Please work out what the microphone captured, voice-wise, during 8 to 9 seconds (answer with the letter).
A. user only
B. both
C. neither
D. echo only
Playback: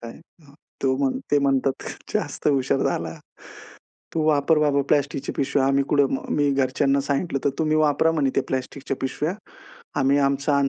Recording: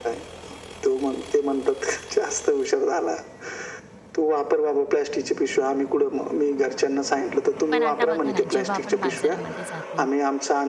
B